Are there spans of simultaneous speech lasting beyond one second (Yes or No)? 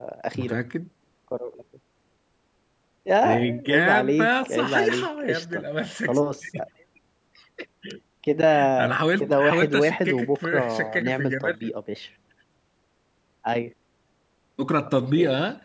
Yes